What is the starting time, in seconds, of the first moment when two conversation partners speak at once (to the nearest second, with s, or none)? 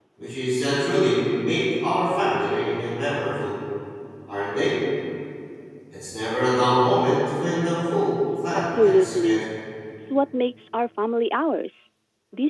8 s